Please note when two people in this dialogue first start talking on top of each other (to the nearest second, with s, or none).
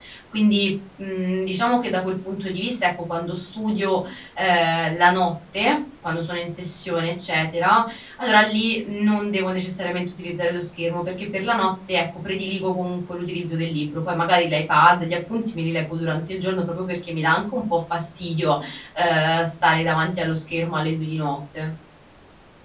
none